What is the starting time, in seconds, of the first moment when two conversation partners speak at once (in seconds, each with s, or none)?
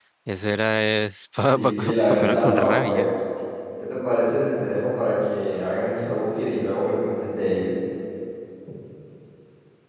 1.5 s